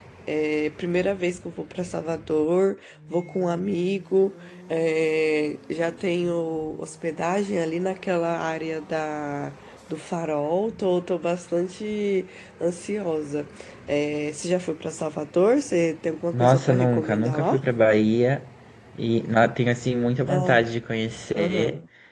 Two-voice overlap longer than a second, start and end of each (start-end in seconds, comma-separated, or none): 16.3-17.6